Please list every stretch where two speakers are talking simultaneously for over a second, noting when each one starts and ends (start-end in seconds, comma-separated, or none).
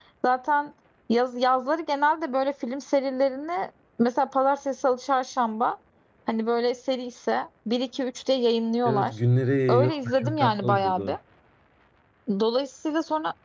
9.7-11.2